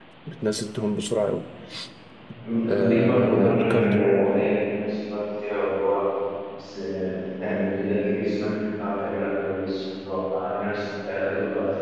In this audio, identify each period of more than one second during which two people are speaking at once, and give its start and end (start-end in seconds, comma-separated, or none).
2.6-4.4